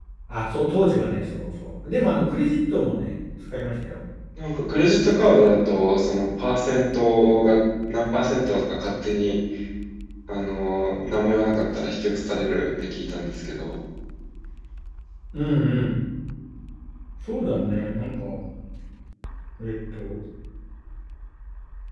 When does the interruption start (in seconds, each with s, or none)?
none